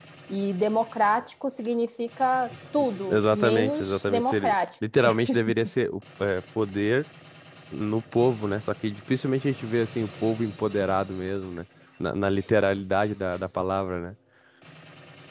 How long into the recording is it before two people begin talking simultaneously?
3.0 s

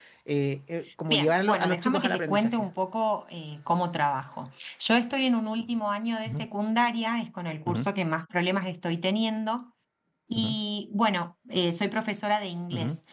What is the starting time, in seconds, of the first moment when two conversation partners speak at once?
1.1 s

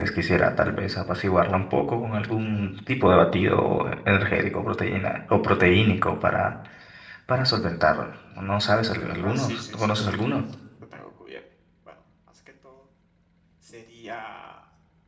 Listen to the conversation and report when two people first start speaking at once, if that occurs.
9.2 s

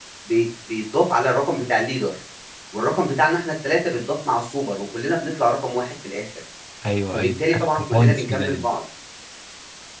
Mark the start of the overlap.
7.1 s

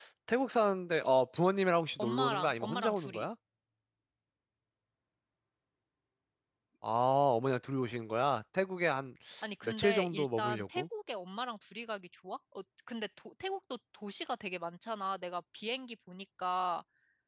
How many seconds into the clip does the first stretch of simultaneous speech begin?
2.0 s

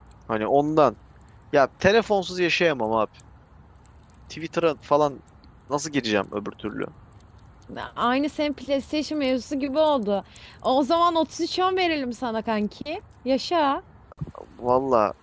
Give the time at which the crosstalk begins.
none

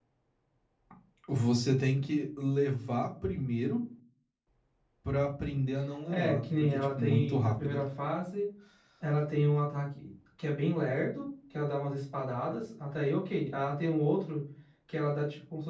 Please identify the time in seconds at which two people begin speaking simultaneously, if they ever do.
6.1 s

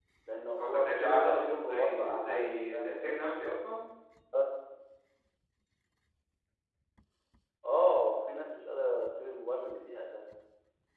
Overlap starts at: 0.6 s

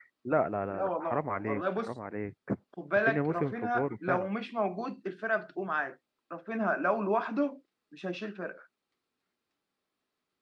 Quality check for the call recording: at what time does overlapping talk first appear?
0.7 s

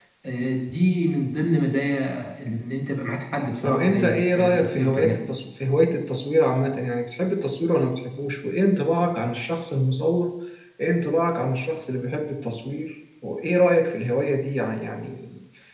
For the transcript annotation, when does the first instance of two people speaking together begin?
3.6 s

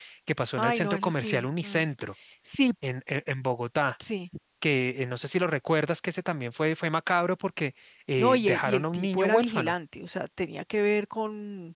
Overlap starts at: 0.6 s

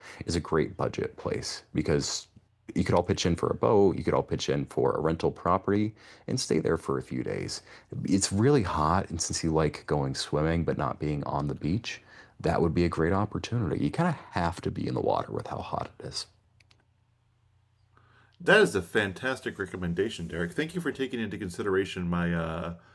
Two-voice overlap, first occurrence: none

